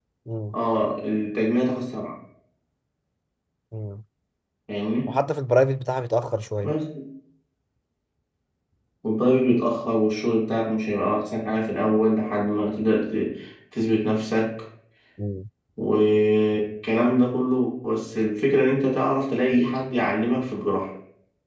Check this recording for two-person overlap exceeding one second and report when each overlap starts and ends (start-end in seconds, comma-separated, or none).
none